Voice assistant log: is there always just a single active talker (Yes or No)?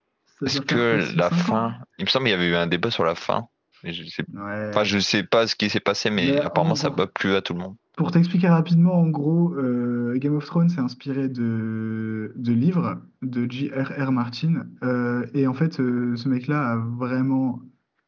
No